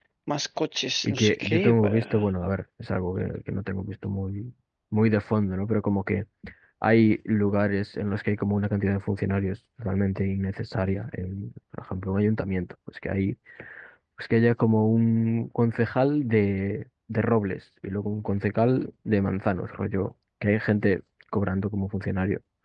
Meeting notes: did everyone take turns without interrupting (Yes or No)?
No